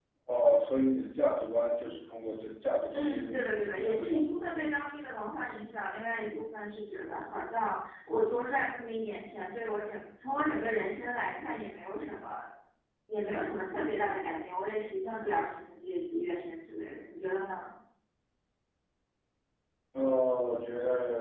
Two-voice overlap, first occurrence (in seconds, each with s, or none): 2.9 s